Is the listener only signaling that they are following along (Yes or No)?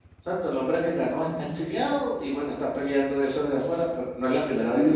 No